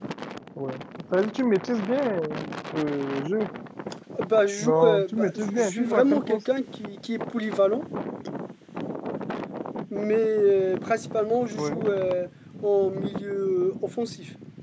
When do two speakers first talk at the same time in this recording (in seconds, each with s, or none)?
4.6 s